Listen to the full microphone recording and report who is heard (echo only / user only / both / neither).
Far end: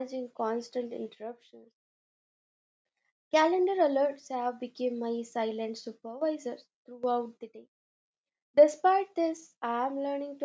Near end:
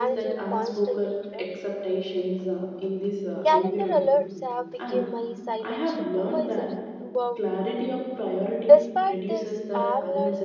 both